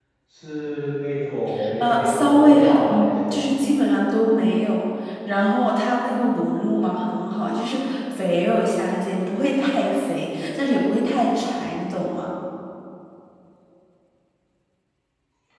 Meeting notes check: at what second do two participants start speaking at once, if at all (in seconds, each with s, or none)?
1.6 s